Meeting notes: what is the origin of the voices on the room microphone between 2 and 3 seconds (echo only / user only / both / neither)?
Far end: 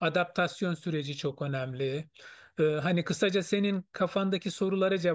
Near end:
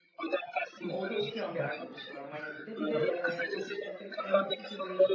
both